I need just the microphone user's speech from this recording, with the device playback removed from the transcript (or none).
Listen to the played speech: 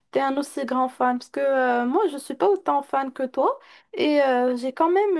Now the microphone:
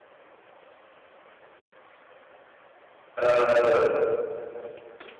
Euh,